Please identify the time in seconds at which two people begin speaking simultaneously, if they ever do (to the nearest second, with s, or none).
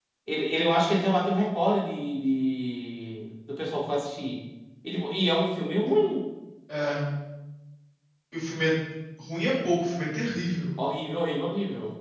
none